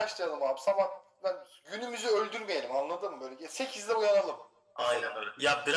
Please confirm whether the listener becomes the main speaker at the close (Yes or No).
Yes